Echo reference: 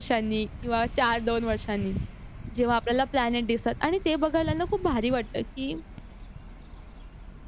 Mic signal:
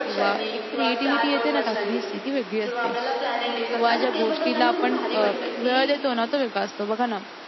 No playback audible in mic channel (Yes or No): No